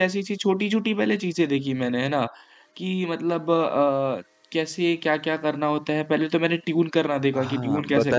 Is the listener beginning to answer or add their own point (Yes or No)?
Yes